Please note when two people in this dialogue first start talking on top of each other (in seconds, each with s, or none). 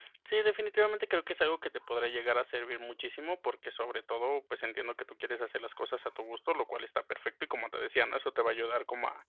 none